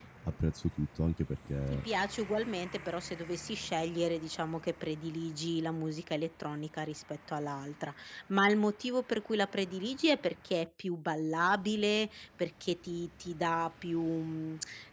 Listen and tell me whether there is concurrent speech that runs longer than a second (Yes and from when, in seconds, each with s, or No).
No